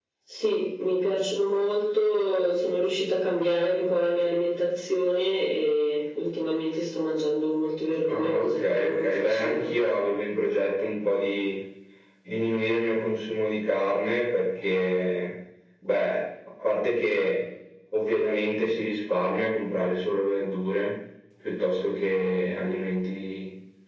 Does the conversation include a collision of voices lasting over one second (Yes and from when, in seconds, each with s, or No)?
Yes, from 8.1 s